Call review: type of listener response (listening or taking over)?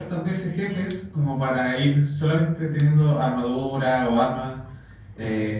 listening